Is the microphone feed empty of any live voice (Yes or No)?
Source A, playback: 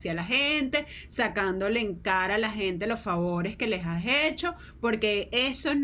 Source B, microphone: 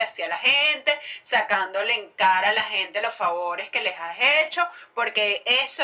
Yes